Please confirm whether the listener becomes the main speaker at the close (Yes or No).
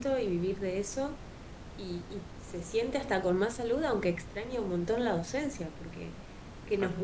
No